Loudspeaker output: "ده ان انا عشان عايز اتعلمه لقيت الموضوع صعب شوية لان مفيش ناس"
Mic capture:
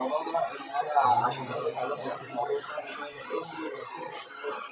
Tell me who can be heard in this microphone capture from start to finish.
both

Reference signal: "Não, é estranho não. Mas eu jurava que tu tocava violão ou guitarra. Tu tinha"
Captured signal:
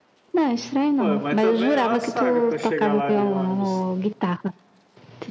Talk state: both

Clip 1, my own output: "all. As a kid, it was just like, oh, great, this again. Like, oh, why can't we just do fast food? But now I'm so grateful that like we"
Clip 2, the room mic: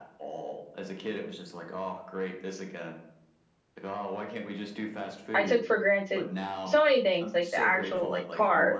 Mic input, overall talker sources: both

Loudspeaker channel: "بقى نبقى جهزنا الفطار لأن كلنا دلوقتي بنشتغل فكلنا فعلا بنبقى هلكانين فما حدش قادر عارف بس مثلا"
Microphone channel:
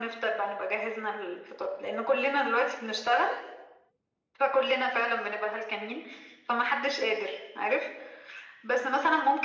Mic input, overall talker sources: echo only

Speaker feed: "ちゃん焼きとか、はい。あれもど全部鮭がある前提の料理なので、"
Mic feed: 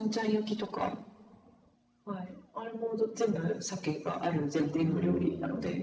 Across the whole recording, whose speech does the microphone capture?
both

